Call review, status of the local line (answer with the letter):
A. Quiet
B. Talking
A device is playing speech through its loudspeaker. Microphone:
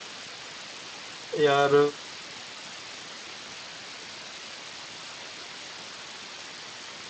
B